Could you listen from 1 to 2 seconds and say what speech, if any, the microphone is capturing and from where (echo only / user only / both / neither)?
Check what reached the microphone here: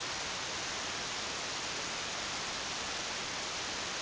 neither